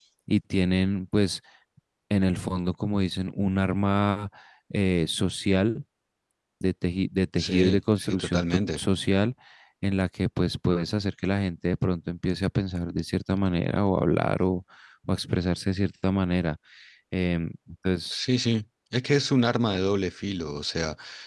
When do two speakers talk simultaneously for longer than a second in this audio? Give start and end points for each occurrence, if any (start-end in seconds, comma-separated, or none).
7.4-8.8